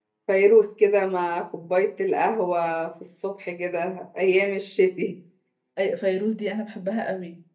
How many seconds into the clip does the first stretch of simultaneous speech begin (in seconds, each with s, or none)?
none